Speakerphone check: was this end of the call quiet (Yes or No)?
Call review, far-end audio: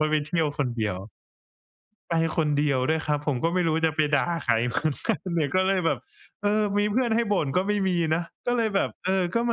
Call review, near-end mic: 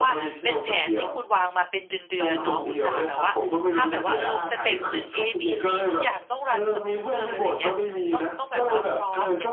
No